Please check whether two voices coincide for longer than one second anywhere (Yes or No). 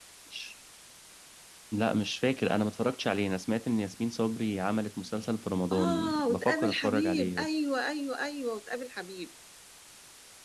Yes